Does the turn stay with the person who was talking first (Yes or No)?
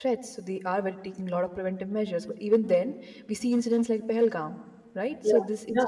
Yes